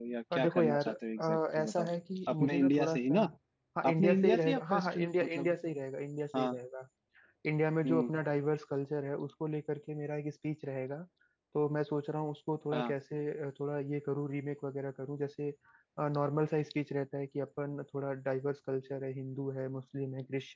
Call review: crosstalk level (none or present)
present